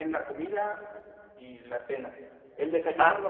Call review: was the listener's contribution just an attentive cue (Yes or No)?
Yes